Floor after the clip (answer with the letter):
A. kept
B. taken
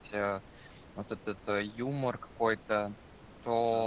A